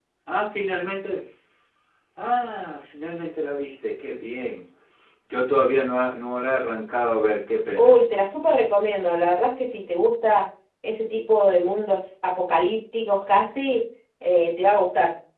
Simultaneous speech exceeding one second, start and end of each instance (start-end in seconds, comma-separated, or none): none